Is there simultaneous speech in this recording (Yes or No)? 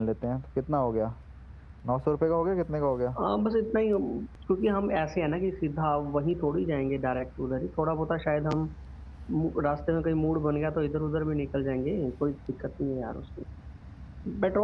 No